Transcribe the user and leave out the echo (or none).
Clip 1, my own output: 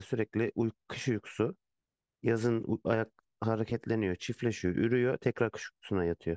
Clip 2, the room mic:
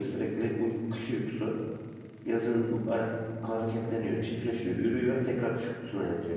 none